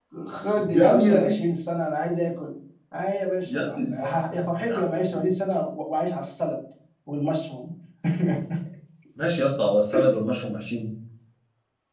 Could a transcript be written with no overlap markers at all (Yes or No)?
No